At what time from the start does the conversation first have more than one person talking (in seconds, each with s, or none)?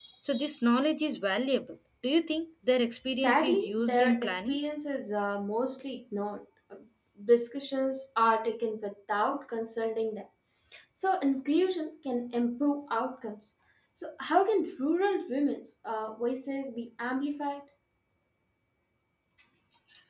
3.1 s